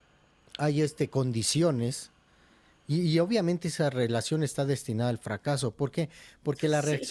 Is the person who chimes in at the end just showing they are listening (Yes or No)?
Yes